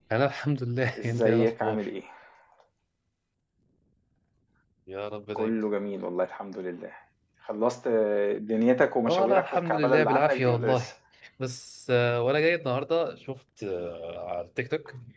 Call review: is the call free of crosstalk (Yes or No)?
No